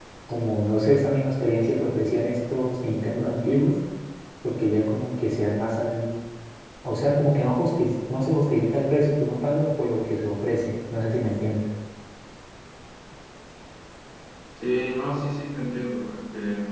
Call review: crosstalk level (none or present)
none